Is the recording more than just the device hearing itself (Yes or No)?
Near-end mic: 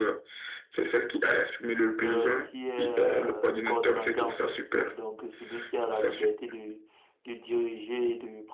Yes